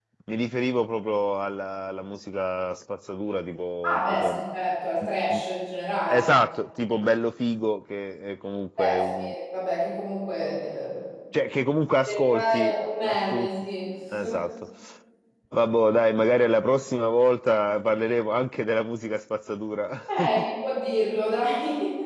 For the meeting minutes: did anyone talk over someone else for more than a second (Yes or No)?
Yes